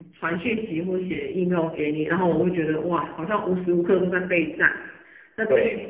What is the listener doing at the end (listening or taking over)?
listening